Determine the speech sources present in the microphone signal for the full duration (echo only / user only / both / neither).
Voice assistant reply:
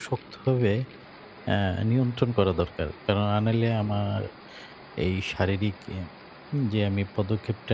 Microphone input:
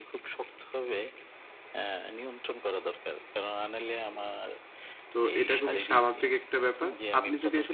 both